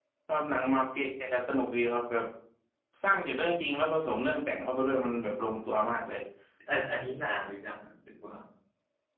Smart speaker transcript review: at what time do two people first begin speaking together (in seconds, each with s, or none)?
none